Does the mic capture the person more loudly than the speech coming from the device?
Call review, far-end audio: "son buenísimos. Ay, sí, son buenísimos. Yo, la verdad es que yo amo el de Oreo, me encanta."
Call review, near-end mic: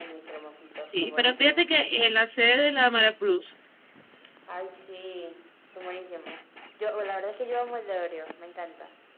Yes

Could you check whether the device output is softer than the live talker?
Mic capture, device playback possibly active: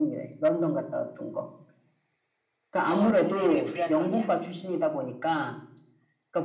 No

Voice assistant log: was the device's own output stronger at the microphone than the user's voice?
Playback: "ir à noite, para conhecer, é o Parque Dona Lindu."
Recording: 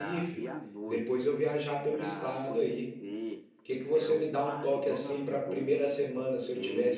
No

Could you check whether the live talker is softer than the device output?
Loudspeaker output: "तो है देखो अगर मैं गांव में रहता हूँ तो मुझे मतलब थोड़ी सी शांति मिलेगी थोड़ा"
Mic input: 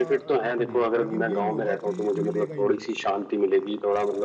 Yes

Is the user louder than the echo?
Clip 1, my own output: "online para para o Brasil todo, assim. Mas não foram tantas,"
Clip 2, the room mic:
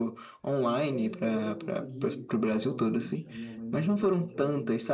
No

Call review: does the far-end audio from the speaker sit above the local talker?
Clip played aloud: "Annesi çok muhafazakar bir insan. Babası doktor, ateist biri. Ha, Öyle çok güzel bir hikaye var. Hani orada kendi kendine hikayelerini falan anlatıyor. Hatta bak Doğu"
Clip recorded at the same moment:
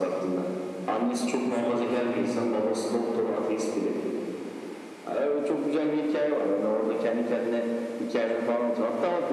Yes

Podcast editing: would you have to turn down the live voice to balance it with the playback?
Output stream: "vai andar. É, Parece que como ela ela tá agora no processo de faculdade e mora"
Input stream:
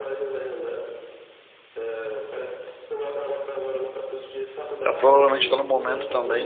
Yes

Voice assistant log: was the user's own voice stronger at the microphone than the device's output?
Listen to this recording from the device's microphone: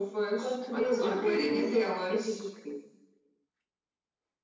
No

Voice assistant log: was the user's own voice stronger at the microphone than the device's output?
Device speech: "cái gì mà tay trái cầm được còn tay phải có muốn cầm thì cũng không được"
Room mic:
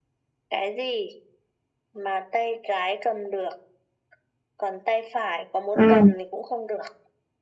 Yes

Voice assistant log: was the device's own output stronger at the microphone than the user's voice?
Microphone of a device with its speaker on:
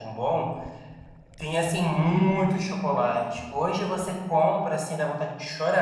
Yes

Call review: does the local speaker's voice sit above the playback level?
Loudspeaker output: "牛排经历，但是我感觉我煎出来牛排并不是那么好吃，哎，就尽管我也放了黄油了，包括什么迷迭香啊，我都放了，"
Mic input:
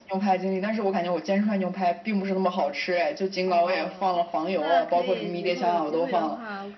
No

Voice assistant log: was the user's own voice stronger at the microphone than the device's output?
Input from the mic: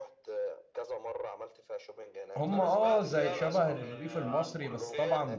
Yes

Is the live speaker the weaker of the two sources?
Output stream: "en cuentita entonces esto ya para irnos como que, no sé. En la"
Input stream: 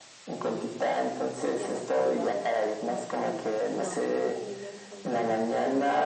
Yes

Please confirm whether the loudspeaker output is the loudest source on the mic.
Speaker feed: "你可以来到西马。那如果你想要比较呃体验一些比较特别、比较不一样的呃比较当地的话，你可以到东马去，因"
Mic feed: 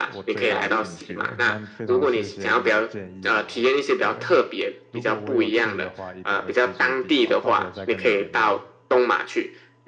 Yes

